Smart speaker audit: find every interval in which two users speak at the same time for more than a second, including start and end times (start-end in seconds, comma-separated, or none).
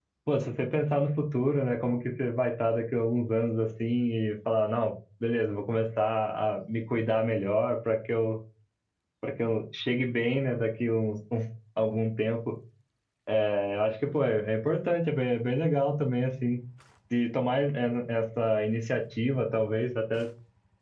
none